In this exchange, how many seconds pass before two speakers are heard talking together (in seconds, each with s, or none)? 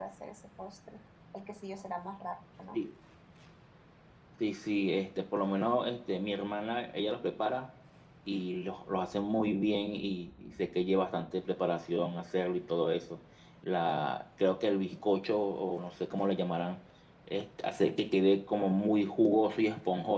none